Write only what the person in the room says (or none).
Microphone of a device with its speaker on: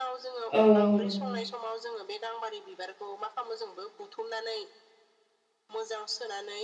औ- औ नंगौ नोंथां।